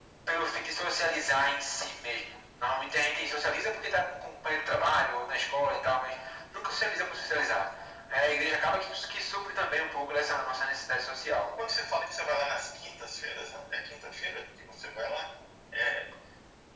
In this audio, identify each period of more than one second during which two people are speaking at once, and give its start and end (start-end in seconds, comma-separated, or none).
none